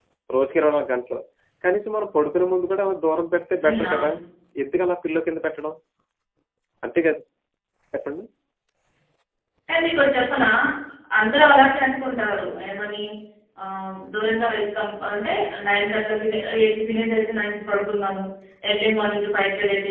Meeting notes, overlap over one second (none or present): none